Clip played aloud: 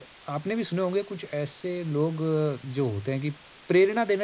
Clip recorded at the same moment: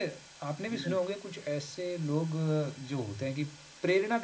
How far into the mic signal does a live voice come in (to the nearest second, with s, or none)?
1 s